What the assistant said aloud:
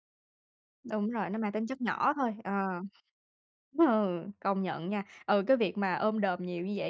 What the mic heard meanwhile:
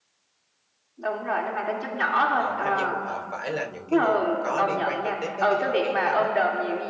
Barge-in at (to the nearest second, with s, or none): 2 s